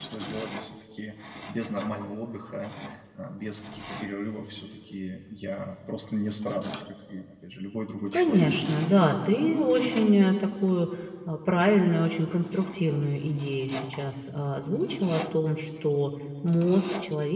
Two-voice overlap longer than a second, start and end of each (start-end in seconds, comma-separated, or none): none